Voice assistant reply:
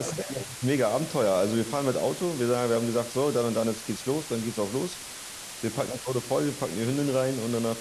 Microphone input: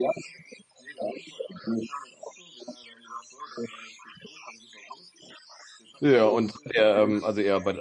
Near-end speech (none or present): present